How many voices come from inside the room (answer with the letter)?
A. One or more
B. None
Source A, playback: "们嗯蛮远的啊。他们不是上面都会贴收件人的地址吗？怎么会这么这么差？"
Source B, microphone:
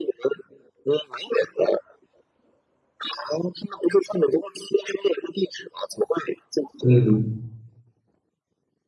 A